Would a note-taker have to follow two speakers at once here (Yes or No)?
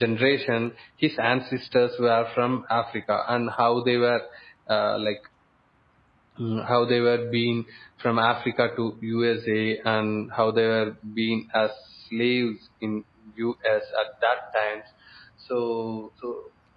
No